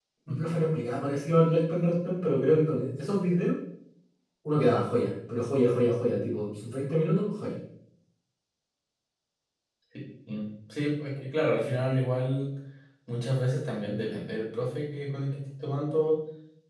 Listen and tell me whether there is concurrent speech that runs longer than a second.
No

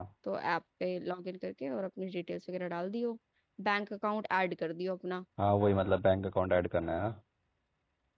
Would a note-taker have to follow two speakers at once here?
No

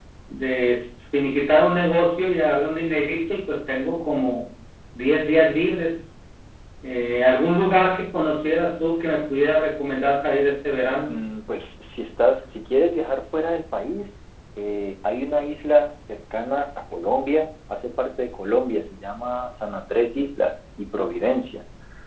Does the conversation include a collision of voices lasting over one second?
No

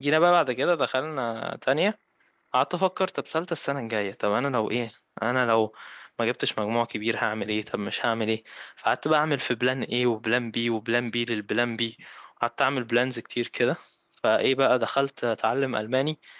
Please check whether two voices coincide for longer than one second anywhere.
No

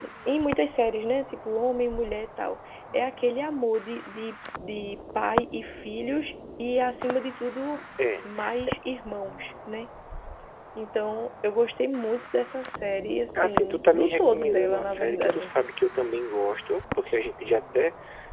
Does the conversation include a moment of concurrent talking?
Yes, from 13.4 s

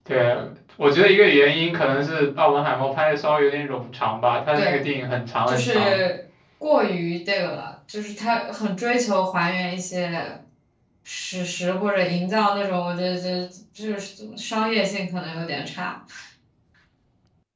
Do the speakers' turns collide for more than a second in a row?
No

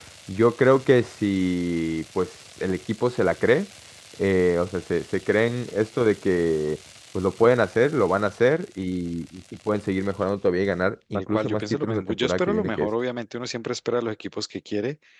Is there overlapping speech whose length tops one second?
Yes, from 11.1 s

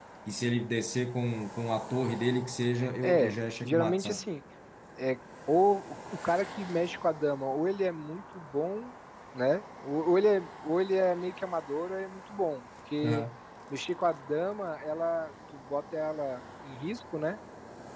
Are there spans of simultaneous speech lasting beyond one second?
Yes, from 2.8 s

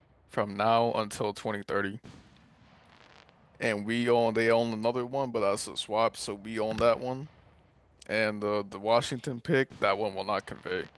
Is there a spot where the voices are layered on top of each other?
No

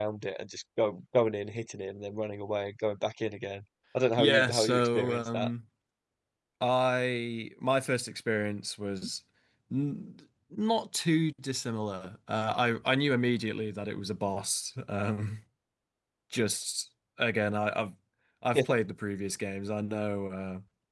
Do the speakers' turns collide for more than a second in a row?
Yes, from 4.2 s

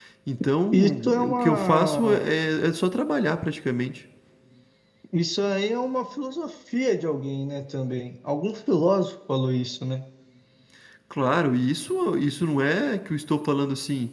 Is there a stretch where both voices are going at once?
Yes, from 0.7 s

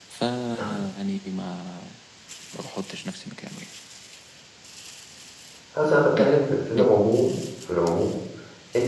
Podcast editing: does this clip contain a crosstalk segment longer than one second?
No

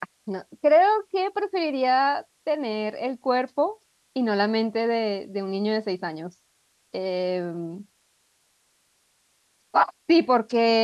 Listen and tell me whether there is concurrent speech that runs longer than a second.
No

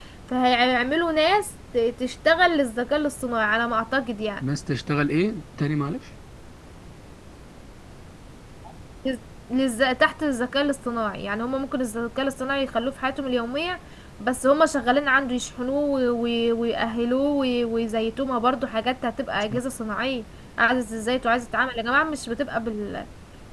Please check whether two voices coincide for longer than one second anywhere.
No

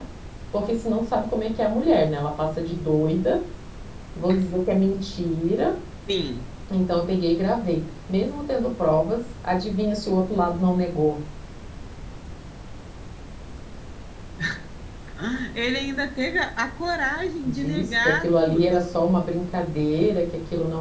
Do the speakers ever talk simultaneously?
Yes, from 17.4 s

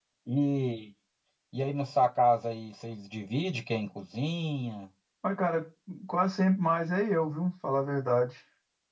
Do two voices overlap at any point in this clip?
No

